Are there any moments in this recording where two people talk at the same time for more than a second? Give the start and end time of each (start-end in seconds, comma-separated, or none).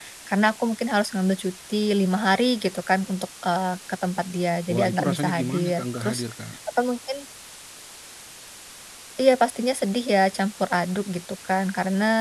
4.7-6.2